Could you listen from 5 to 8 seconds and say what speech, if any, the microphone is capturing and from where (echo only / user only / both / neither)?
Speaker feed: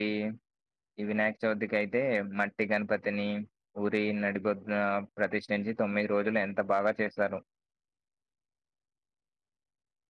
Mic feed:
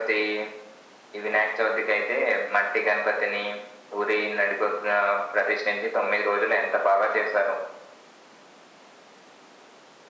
echo only